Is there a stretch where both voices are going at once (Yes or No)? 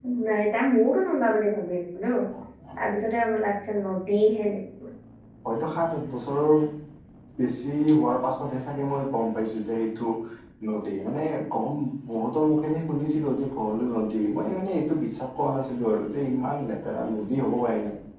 No